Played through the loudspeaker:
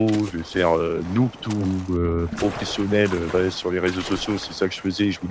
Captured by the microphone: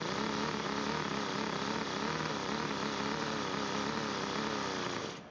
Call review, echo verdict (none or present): none